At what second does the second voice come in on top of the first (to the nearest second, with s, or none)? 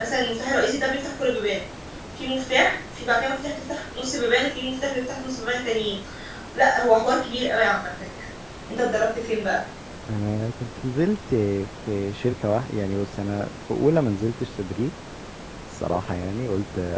none